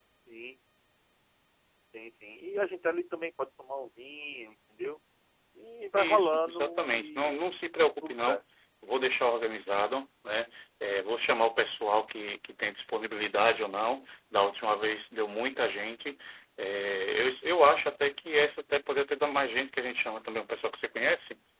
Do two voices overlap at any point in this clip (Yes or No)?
Yes